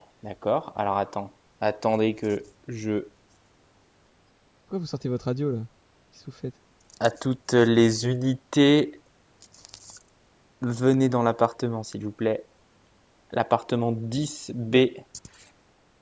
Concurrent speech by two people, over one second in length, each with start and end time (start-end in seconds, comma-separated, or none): none